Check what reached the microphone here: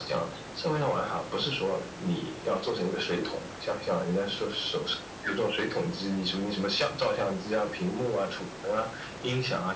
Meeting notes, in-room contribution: none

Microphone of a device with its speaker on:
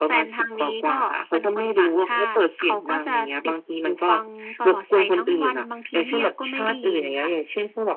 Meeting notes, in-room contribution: none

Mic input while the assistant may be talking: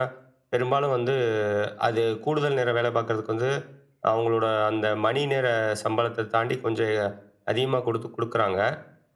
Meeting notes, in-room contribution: none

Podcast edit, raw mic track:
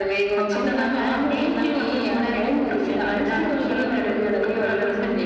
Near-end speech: present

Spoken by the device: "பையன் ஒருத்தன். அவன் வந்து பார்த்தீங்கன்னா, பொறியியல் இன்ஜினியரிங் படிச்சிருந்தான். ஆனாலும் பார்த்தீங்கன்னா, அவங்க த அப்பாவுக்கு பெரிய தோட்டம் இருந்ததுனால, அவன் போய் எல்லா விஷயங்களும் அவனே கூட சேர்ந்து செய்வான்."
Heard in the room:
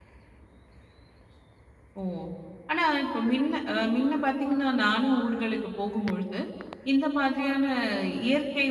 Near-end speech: present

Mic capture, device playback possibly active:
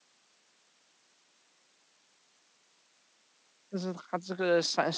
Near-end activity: present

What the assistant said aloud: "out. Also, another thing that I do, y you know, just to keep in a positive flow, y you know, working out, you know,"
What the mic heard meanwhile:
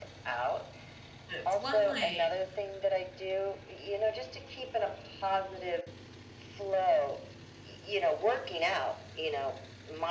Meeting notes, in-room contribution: present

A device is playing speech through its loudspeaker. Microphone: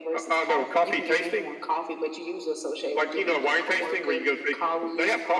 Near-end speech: none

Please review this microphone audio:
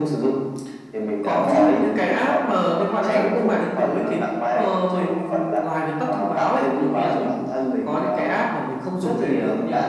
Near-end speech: none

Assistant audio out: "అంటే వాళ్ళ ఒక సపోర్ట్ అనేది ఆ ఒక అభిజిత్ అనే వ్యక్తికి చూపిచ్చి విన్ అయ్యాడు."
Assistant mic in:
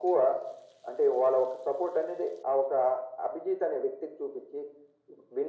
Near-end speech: none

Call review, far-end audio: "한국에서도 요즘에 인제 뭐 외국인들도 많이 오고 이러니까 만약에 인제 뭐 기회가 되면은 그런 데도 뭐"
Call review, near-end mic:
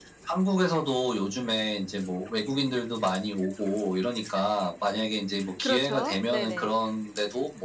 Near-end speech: present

